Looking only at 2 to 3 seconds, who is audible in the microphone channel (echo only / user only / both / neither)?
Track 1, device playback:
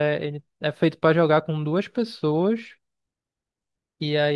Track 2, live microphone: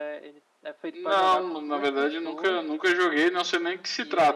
both